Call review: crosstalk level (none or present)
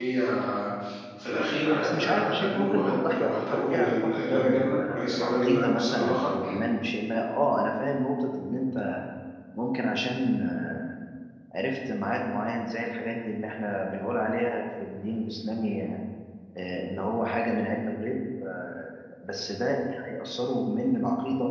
present